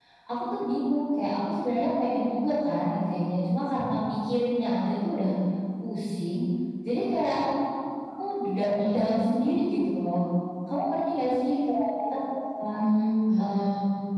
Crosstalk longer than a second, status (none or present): none